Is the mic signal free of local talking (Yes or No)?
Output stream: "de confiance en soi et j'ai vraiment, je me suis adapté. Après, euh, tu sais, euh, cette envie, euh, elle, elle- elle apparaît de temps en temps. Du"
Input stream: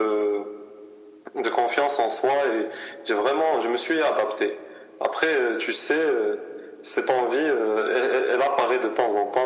Yes